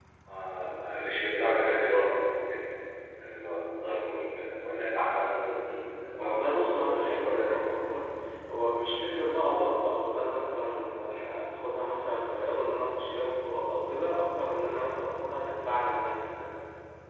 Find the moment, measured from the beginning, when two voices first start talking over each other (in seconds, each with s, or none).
6.2 s